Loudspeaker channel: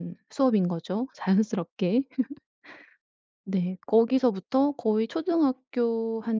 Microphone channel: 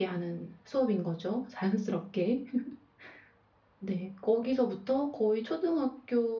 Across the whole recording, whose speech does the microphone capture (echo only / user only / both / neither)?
echo only